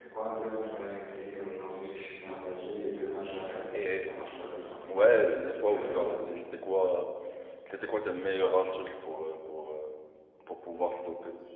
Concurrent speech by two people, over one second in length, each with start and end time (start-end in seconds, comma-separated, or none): none